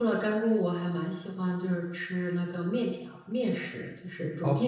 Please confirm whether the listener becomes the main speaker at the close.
Yes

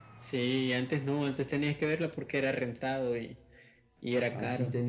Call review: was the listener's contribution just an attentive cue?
No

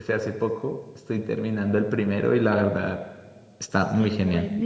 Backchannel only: No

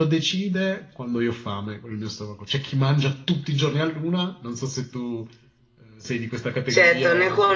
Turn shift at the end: Yes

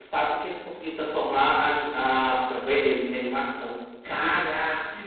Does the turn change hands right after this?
Yes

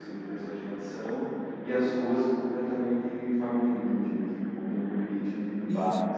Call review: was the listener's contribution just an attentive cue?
No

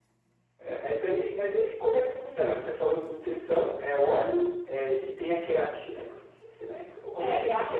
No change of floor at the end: No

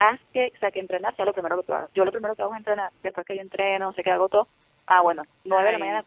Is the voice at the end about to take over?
No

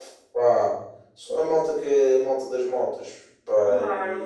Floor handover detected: Yes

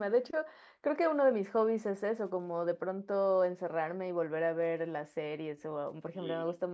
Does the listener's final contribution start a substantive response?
No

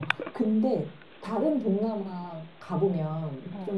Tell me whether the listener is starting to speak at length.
No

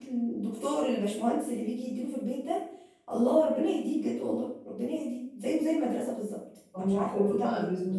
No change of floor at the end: No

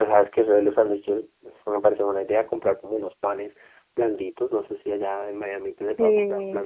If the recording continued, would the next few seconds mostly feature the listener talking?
No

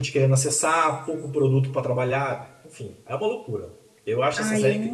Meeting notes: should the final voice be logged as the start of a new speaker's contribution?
Yes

